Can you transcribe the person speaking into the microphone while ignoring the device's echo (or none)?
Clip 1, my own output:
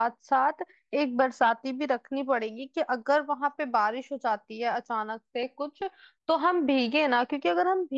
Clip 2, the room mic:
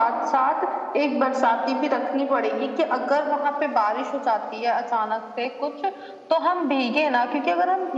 none